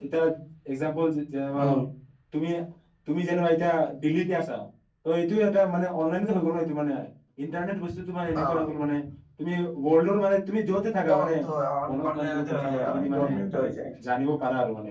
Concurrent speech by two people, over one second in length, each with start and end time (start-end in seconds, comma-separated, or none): 12.1-13.3